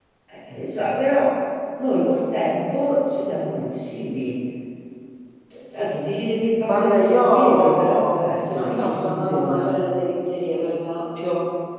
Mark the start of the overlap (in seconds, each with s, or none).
6.7 s